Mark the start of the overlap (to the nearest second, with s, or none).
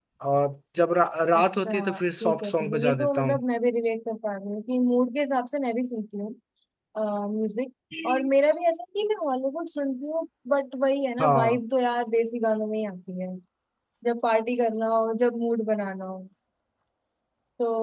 1 s